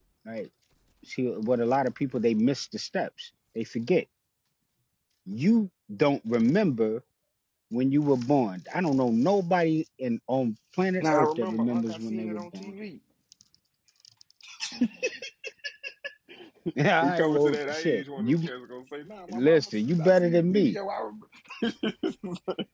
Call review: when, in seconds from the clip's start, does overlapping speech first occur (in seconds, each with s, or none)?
11.0 s